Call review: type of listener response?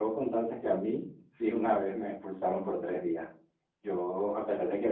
listening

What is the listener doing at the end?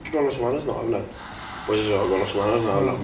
listening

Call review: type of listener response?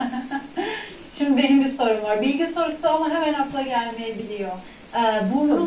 listening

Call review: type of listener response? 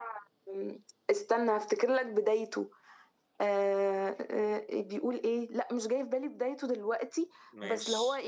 listening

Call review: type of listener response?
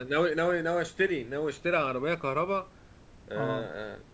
listening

